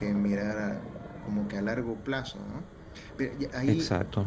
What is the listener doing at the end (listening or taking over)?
listening